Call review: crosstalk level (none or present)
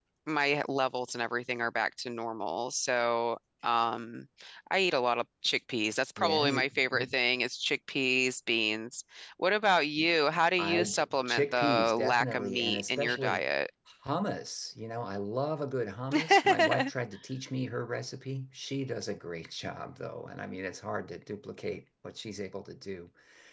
present